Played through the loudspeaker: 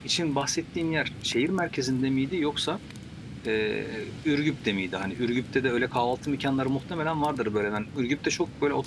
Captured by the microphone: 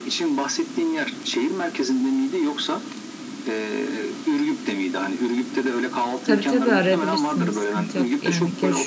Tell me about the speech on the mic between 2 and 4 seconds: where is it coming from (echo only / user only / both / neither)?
echo only